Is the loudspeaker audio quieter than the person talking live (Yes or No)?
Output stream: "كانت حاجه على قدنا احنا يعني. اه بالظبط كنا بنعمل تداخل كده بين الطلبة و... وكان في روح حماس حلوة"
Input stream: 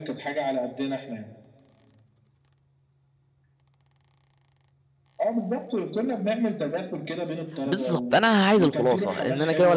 Yes